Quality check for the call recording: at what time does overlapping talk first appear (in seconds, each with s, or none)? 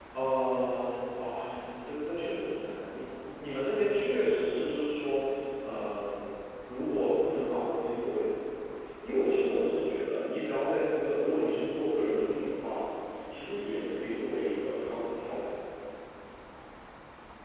none